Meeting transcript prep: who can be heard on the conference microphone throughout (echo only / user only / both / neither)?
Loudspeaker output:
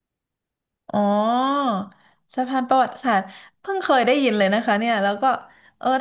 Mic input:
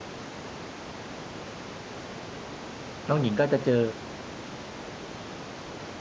user only